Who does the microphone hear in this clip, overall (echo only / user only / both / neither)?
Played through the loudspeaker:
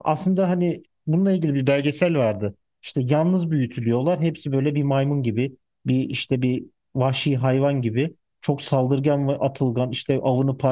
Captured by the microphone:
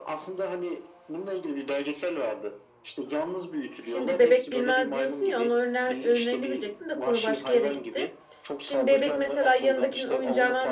both